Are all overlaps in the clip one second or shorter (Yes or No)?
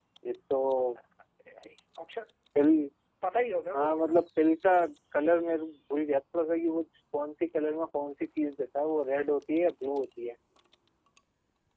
Yes